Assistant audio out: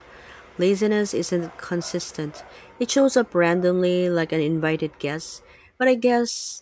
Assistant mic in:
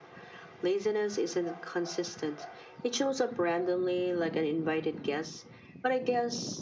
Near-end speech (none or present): none